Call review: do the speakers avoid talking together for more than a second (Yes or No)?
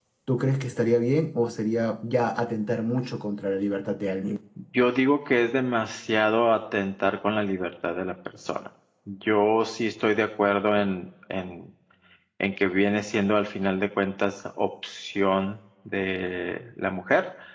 Yes